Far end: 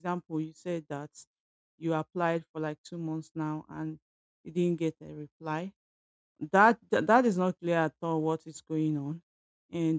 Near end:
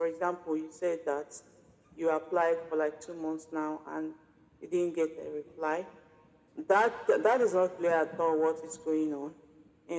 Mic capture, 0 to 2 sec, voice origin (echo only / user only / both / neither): echo only